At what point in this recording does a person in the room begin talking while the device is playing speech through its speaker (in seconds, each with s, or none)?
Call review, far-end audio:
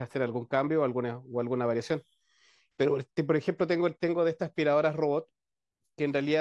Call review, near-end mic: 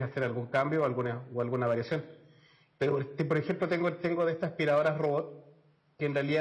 none